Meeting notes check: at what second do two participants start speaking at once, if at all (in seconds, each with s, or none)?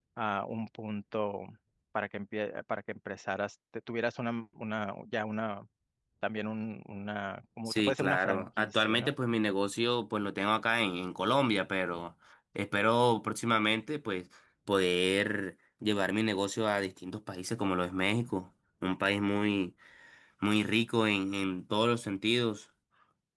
7.7 s